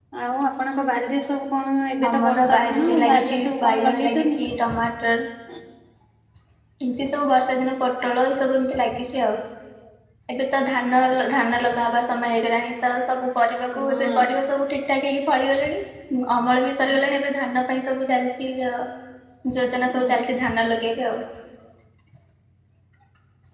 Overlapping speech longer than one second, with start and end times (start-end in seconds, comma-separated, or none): 2.1-4.4